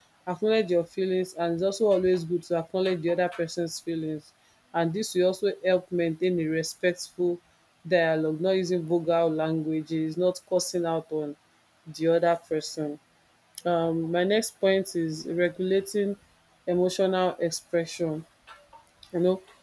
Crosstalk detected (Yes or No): No